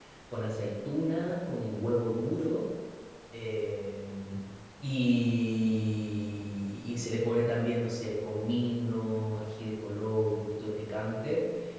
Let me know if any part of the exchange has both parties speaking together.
No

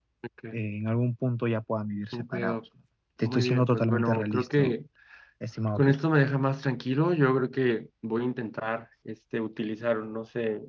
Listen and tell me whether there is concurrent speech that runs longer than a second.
Yes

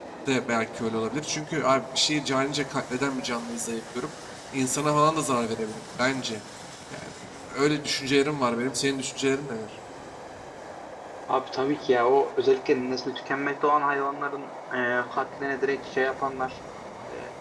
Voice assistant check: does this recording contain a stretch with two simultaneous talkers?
No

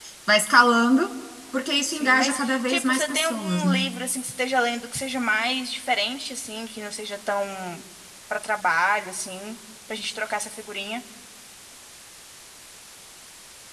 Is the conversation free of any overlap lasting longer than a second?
No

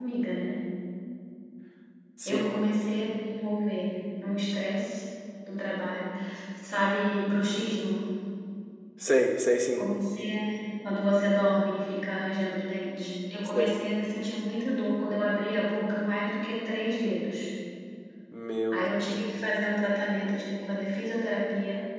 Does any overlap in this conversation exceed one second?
No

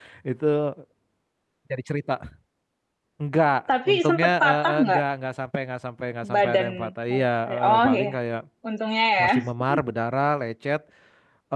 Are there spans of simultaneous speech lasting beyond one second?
Yes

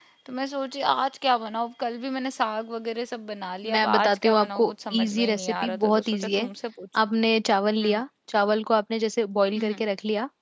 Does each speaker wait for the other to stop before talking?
No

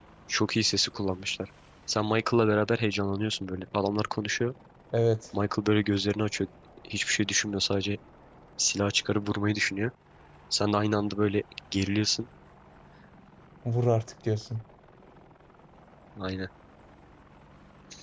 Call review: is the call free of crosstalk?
Yes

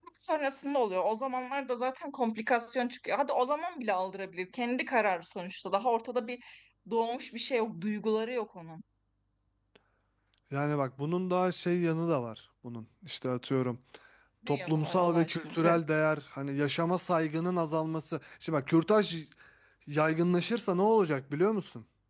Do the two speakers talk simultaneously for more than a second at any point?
Yes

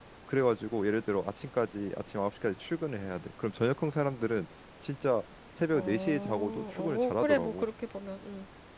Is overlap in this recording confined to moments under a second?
No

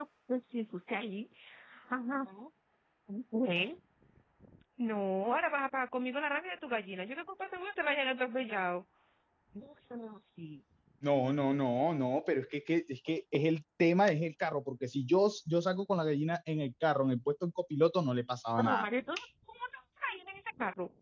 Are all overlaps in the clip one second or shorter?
Yes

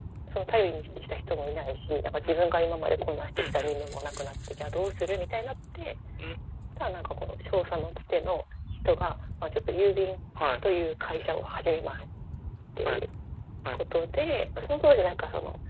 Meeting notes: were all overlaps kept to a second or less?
Yes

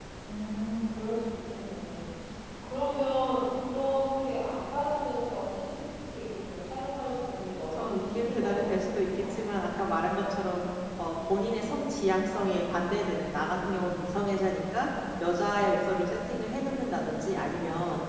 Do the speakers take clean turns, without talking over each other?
No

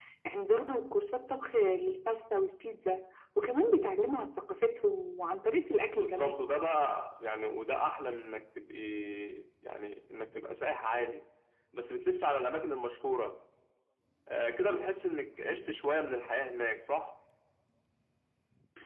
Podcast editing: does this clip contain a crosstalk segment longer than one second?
No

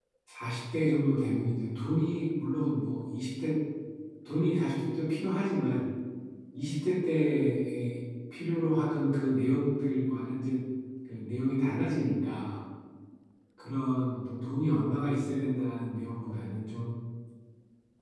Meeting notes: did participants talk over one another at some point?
No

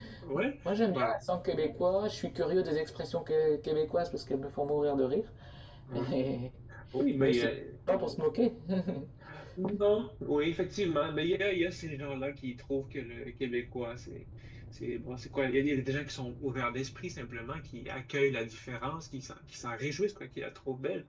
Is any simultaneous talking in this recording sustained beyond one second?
No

